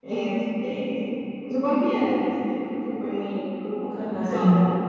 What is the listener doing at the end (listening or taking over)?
listening